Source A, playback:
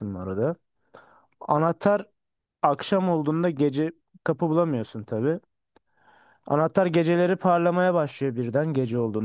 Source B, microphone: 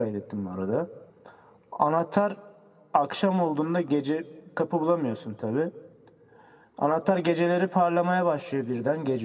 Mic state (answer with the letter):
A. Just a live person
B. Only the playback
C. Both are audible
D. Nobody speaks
B